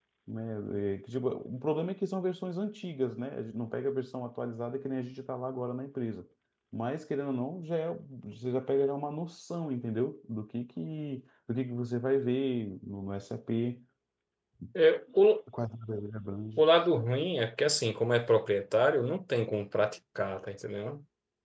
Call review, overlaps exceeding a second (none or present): none